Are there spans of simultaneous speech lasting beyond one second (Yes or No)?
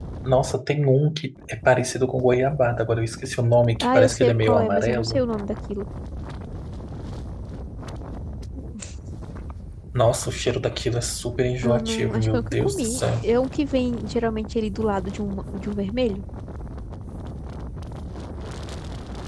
Yes